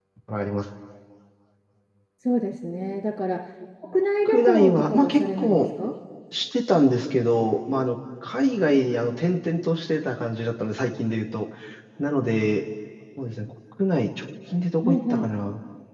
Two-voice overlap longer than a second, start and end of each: 4.2-5.6

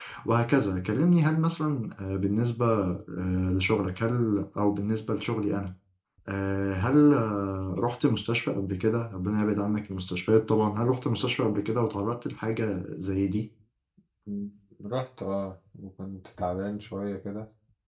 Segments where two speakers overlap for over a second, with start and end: none

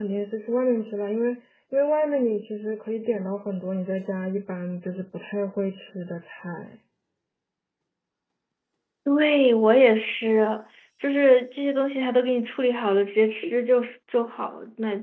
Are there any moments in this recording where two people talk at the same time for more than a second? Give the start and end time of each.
none

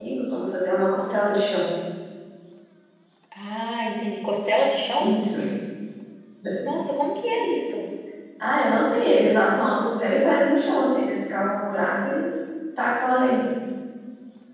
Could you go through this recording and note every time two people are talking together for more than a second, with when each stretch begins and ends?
none

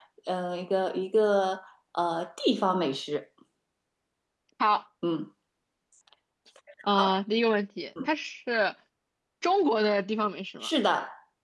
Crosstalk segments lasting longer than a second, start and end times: none

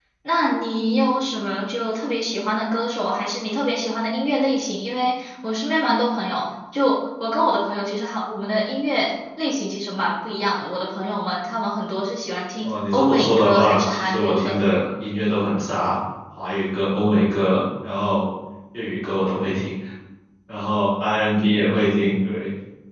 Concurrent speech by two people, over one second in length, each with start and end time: 12.6-14.6

